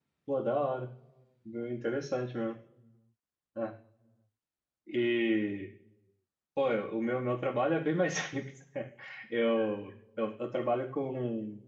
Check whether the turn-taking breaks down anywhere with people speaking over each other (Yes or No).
No